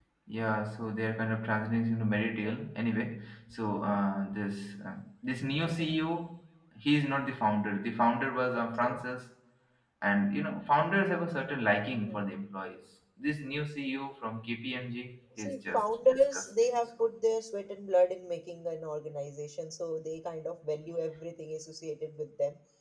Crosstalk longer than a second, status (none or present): present